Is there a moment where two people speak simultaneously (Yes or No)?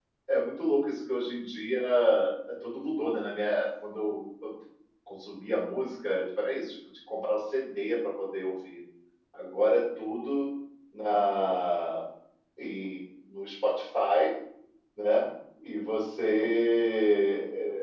No